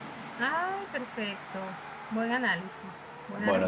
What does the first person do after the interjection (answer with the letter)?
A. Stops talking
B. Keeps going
A